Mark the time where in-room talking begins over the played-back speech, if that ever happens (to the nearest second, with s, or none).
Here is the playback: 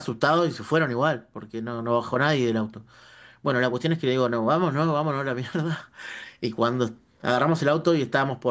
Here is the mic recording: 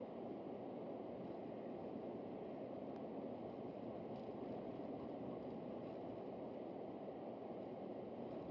none